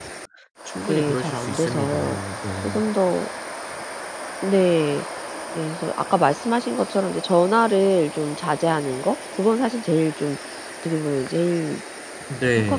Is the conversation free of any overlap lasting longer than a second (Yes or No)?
No